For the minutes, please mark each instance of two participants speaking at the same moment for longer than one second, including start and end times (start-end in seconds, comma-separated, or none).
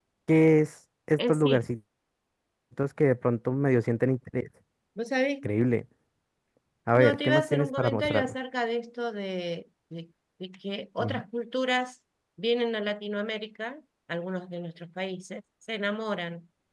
7.0-8.3